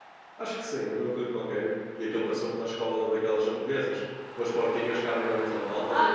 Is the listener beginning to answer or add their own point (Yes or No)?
Yes